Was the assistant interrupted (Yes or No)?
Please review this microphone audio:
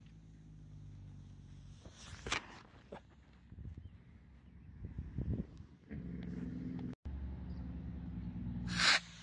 No